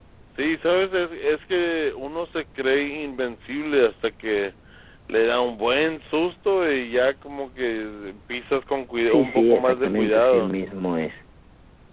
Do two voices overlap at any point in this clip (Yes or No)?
Yes